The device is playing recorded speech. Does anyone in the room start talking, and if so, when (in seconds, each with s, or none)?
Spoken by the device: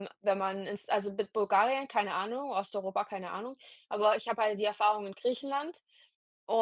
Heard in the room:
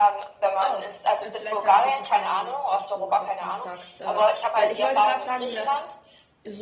0.6 s